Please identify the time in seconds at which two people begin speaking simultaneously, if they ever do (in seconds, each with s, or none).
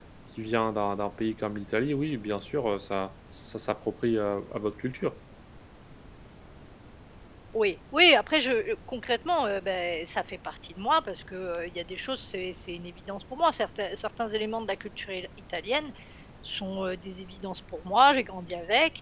none